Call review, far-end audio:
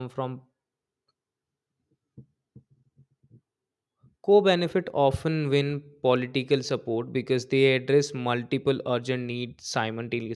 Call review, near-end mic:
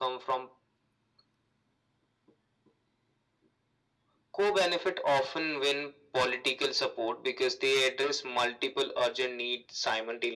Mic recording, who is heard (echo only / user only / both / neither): echo only